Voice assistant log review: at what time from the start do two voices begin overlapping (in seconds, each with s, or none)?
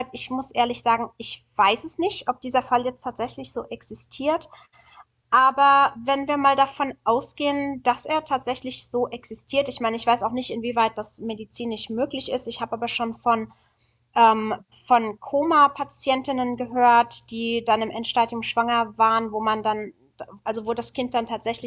none